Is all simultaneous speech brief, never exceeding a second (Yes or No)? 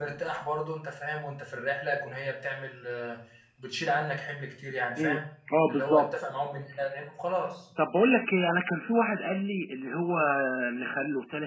Yes